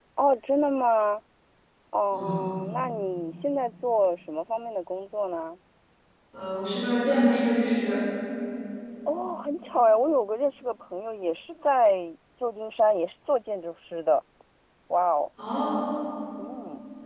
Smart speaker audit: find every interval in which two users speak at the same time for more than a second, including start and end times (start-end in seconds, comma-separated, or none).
none